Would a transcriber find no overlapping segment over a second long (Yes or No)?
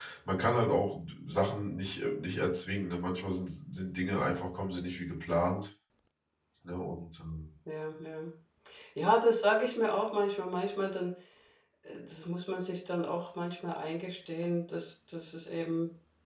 Yes